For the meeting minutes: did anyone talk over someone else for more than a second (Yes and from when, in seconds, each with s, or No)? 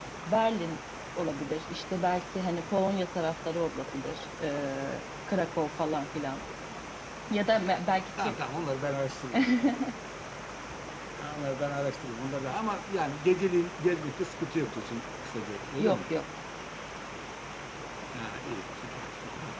No